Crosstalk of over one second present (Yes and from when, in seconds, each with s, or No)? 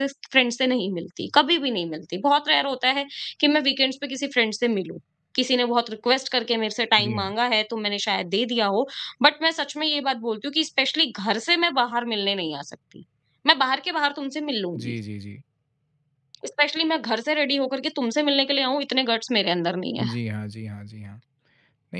No